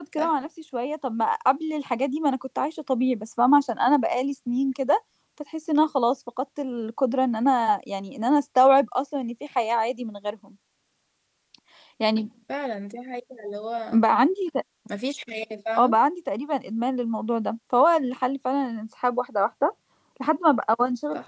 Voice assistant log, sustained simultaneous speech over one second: none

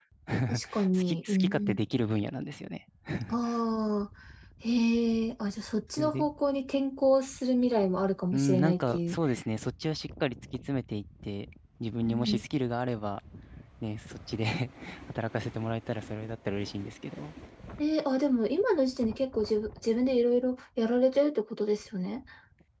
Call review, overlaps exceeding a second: present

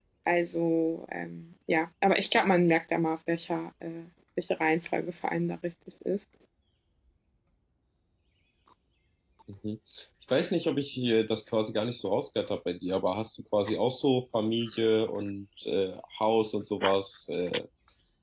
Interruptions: none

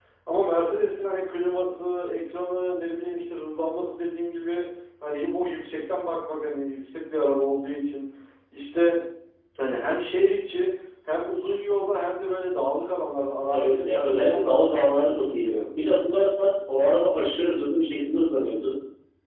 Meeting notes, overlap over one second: present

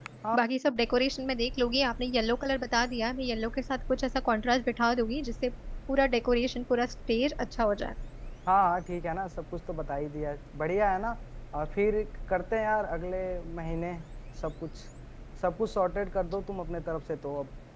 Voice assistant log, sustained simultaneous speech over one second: none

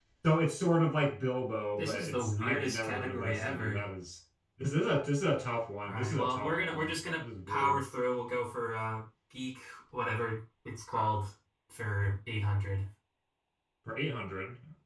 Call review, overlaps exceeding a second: present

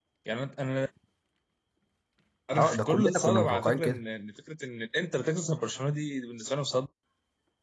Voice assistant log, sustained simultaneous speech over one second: present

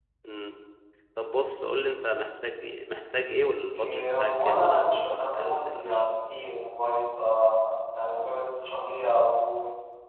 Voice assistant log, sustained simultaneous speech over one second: present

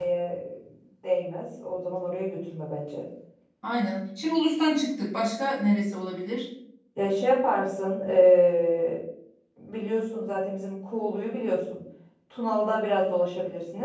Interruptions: none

